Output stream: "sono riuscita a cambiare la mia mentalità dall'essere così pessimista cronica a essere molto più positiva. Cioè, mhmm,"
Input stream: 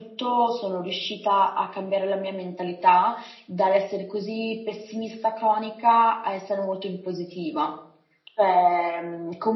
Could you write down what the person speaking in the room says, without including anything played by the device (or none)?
none